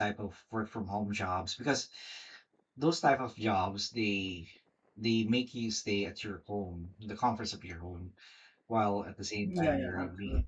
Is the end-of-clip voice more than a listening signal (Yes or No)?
Yes